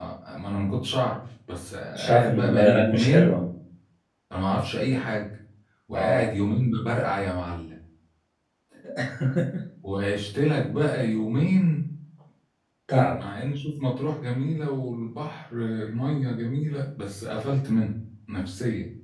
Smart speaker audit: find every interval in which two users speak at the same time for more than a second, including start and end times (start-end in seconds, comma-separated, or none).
1.9-3.4